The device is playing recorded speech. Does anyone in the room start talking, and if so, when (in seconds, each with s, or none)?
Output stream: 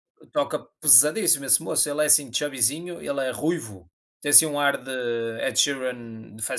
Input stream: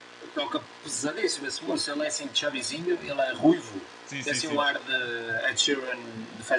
4.0 s